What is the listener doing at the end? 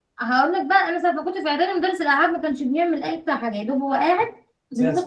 listening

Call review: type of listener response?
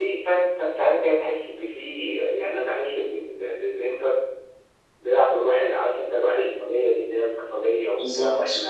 listening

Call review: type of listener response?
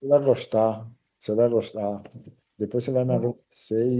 listening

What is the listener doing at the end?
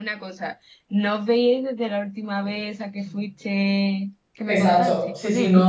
taking over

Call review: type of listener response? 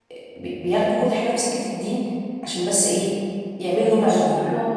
taking over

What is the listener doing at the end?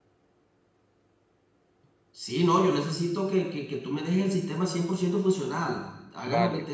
listening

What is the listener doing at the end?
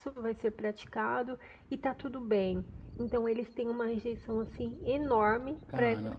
listening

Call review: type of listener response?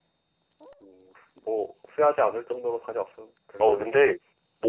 taking over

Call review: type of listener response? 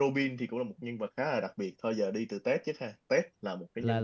taking over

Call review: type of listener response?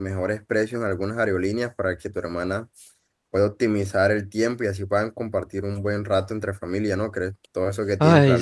taking over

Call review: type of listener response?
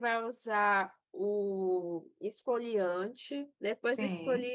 listening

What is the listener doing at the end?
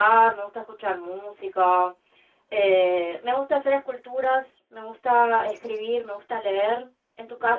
taking over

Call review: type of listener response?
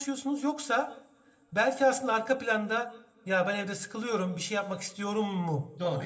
taking over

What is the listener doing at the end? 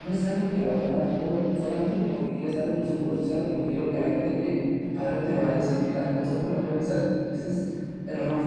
taking over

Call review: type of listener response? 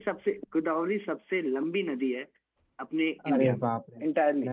taking over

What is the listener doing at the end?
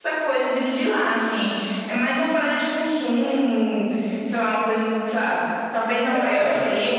listening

